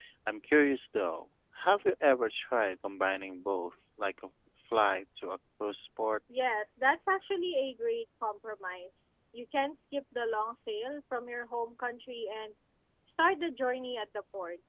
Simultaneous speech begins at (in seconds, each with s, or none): none